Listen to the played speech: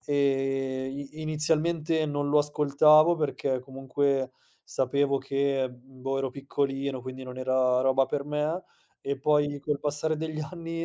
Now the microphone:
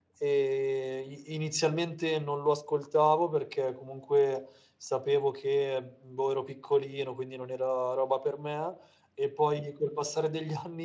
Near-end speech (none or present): none